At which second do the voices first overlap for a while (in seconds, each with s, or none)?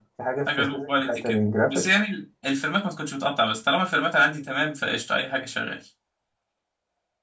0.6 s